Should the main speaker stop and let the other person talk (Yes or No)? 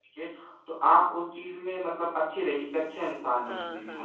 Yes